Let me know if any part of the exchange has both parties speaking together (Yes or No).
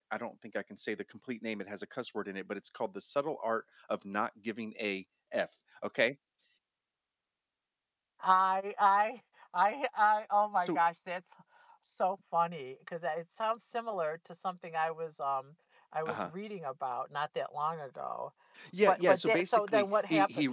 Yes